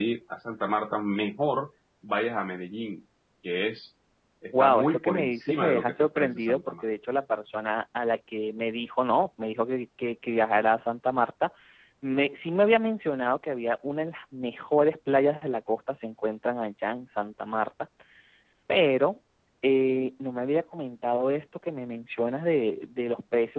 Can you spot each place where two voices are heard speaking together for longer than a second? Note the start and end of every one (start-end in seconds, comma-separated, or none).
4.6-6.8